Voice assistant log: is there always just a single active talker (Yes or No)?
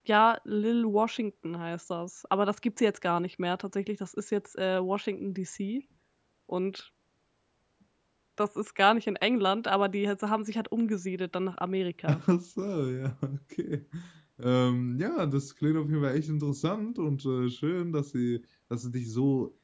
Yes